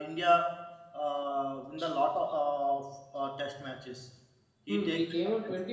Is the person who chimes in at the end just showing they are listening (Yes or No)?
No